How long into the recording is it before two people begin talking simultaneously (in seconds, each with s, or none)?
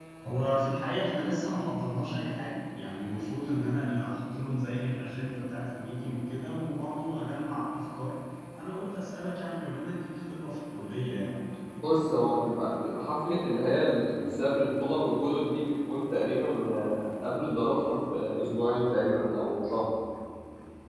none